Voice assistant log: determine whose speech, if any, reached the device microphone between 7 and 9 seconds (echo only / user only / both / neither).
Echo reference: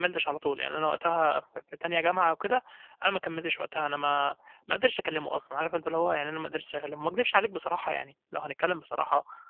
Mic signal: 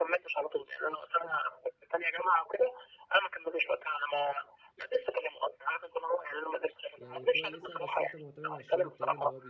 both